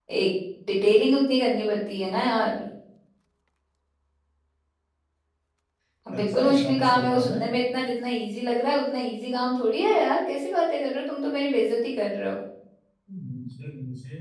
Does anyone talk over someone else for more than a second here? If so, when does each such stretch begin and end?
6.2-7.4

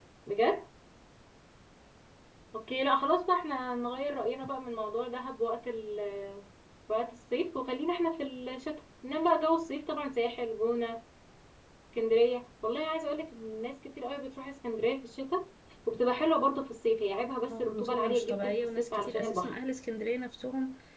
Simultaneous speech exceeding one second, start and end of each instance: 17.5-19.5

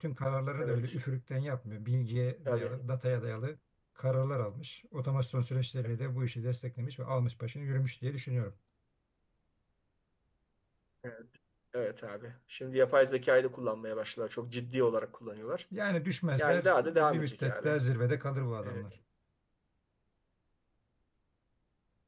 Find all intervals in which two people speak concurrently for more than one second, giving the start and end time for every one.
16.4-17.8

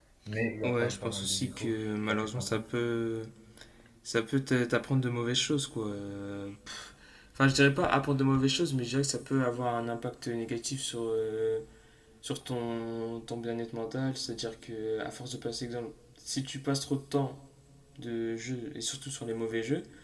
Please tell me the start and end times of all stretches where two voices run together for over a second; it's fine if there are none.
0.6-2.7

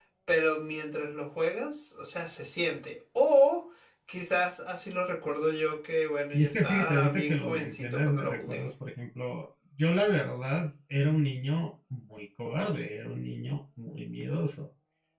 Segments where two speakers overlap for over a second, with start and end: 6.3-8.6

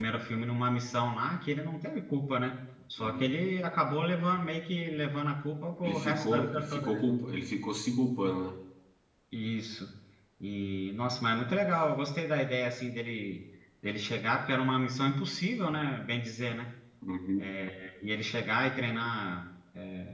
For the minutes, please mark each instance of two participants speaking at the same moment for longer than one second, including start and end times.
5.8-7.1

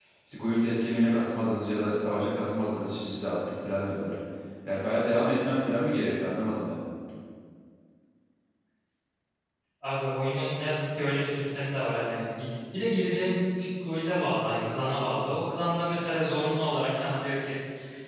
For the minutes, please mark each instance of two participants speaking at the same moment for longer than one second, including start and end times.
none

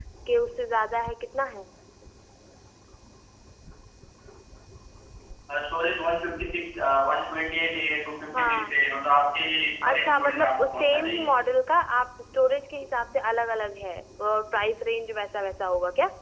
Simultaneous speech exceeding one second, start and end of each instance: 9.8-11.3

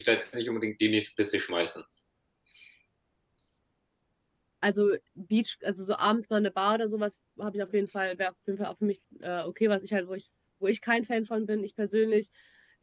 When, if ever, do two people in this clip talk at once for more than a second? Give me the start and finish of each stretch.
none

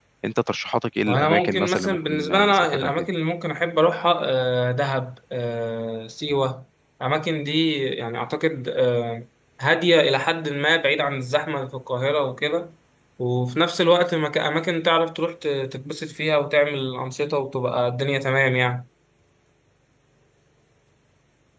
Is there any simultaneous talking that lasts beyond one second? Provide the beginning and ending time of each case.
1.1-2.9

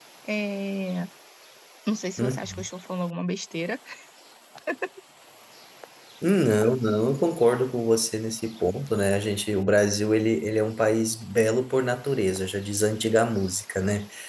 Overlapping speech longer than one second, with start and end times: none

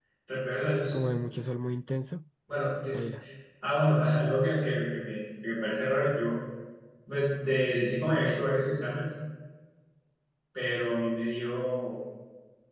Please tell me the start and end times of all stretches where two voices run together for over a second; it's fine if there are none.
none

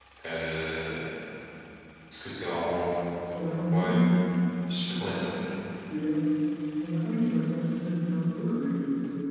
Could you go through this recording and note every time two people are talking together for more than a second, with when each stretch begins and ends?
none

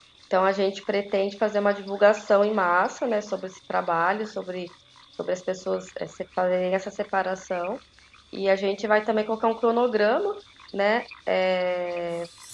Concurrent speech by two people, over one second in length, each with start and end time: none

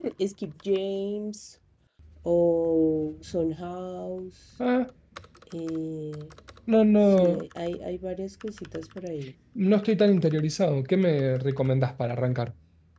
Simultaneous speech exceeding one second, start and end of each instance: none

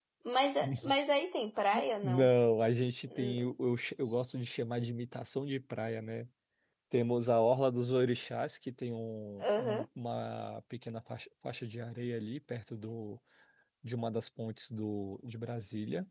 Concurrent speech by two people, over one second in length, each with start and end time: none

